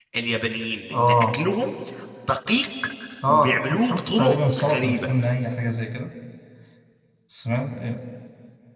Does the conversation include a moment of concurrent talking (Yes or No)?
Yes